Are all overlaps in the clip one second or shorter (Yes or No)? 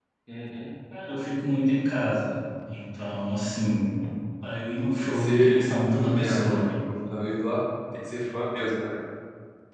No